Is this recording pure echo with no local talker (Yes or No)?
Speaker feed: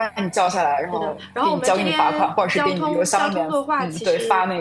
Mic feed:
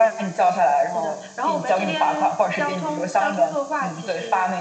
Yes